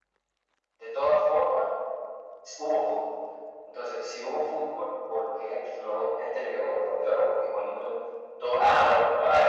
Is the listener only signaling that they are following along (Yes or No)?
No